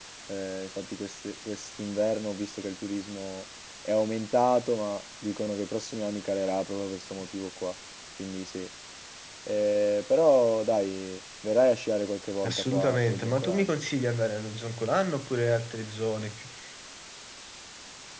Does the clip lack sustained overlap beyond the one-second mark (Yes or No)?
No